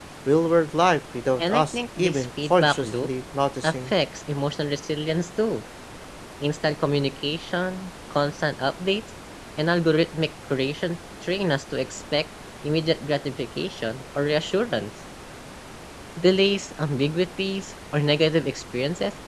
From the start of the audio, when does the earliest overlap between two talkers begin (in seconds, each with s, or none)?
1.4 s